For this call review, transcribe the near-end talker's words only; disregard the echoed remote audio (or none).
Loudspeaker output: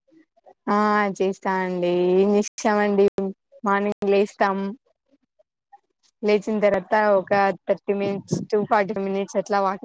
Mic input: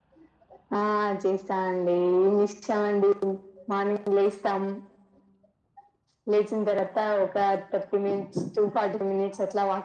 none